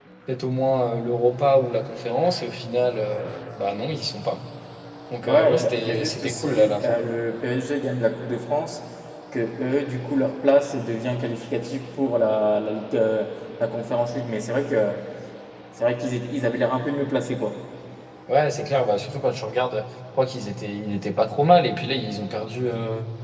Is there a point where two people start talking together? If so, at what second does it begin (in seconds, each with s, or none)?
5.2 s